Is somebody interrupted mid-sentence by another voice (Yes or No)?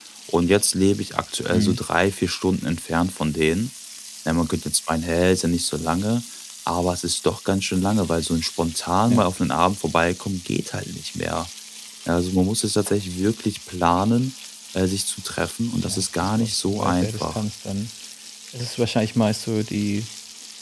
Yes